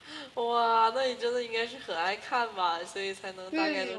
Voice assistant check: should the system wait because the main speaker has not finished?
No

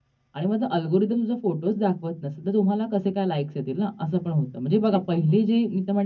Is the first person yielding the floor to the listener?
No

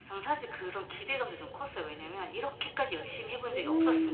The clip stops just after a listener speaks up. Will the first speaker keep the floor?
No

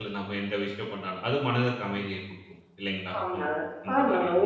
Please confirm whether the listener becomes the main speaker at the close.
Yes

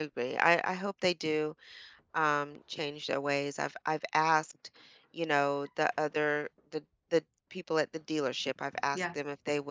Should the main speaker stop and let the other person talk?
No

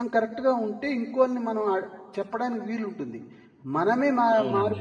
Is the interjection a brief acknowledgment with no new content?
Yes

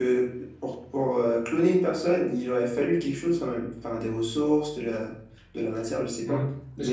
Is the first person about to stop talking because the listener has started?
Yes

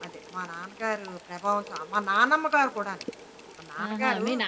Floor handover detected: Yes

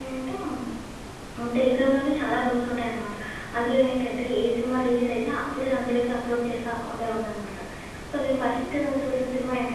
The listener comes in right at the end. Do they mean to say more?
No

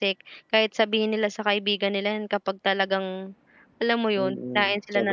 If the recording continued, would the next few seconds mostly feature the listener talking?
Yes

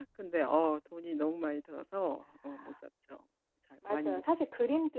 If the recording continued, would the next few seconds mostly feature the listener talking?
Yes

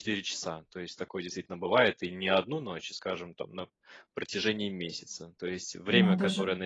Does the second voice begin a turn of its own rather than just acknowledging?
No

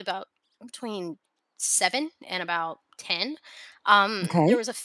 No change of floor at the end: Yes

